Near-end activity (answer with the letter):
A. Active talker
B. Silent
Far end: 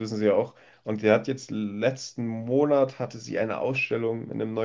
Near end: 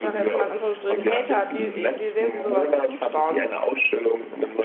A